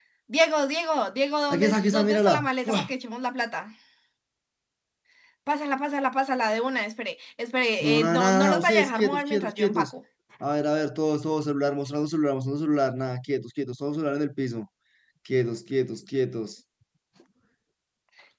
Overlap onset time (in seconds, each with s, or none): 1.5 s